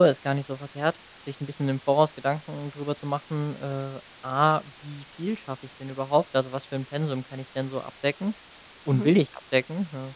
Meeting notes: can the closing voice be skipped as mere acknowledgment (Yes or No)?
Yes